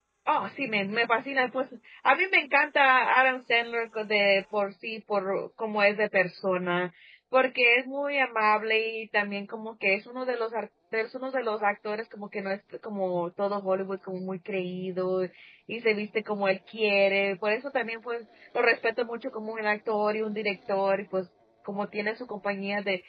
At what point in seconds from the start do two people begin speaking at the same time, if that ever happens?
none

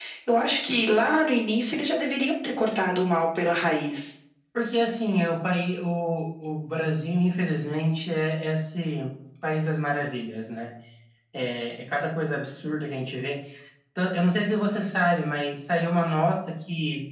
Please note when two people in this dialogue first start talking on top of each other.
none

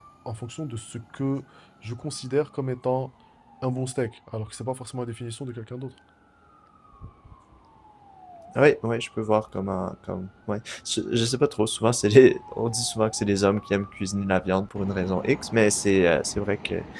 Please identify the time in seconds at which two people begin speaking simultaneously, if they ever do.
none

